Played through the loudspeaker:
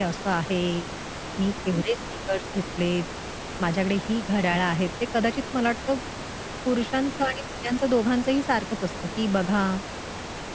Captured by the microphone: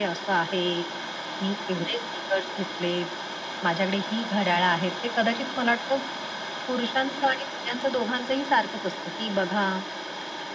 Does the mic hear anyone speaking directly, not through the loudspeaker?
No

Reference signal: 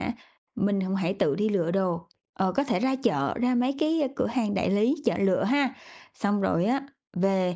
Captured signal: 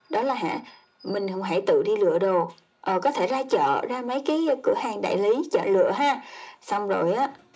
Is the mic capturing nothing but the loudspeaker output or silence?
Yes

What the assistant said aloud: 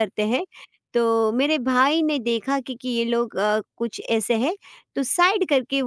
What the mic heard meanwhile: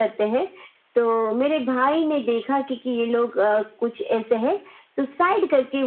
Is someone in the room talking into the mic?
No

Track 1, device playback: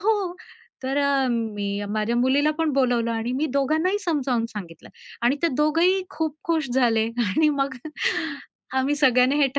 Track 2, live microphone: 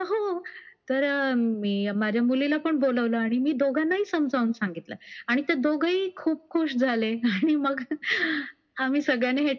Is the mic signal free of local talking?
Yes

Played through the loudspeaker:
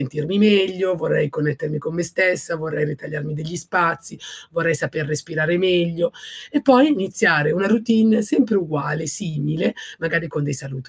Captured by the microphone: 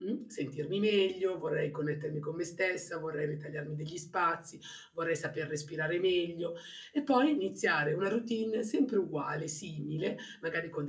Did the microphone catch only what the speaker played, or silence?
Yes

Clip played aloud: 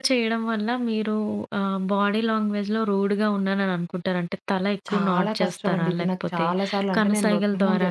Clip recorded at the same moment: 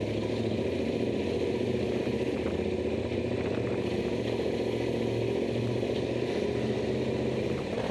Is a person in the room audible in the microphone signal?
No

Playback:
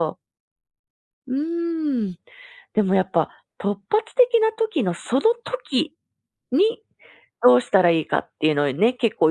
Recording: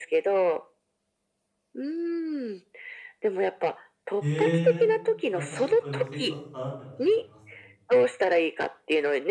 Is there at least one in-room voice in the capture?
Yes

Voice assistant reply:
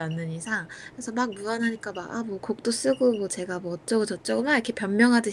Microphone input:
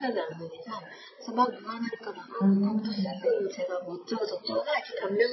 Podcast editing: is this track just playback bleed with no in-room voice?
No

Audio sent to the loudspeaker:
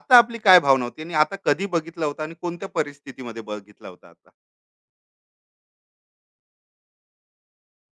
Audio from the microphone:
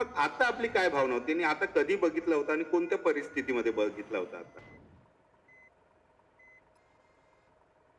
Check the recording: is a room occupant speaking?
No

